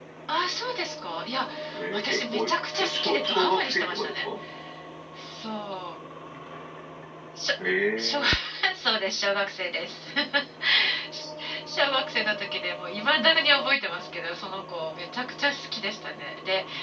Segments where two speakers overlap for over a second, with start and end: 1.9-4.3

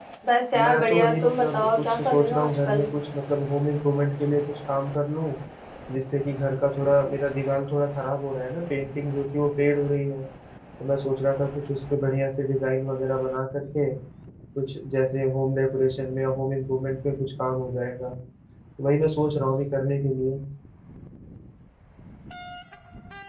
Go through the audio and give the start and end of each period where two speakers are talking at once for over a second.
0.5-2.9

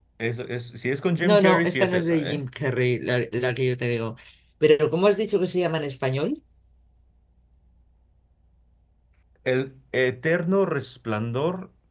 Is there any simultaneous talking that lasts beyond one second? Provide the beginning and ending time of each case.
1.2-2.4

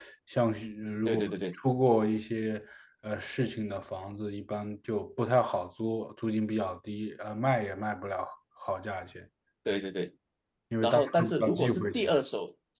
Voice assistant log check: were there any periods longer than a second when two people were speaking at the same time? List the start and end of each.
10.8-12.2

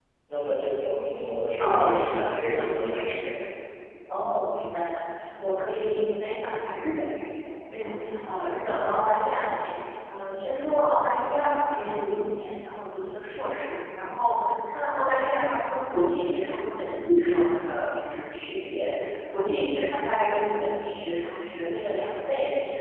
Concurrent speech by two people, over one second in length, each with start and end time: 1.6-3.2

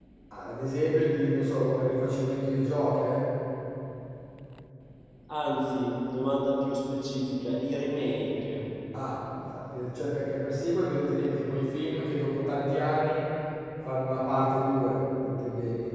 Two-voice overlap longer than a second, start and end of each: none

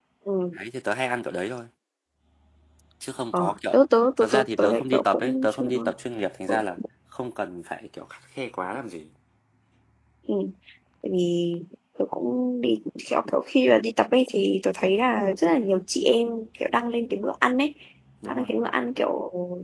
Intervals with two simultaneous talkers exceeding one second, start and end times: 4.2-5.6

